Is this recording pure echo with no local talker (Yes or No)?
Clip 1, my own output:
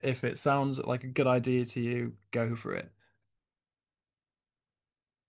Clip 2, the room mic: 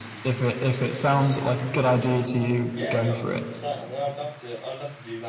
No